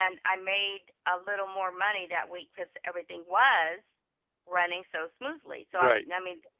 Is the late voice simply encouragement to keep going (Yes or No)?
Yes